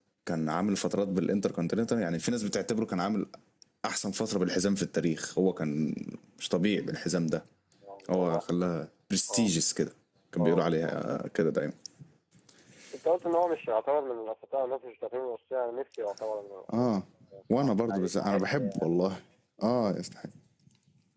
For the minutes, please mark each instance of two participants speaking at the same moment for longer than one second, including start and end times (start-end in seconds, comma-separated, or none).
17.6-18.9